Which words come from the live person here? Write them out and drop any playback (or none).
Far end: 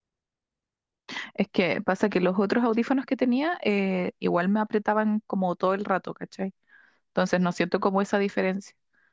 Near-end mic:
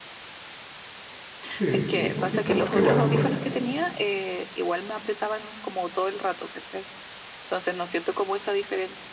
Sí, sí, no, si esta marca igual es buena.